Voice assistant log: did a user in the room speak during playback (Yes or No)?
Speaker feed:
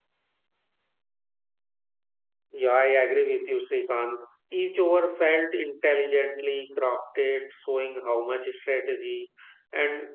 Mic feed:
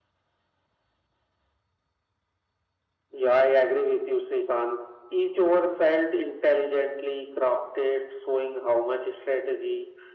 No